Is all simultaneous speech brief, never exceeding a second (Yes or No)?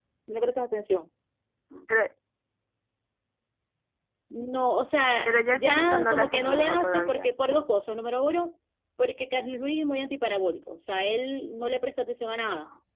No